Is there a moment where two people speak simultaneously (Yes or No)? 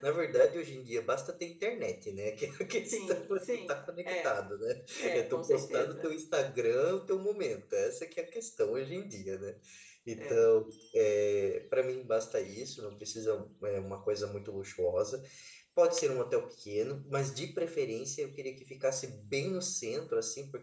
Yes